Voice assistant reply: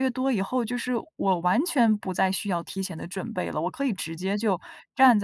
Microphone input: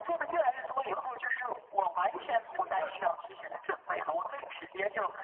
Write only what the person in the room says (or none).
是的，是的。那，